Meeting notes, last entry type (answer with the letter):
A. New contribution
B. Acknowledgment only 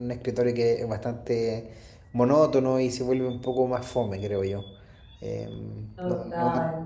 B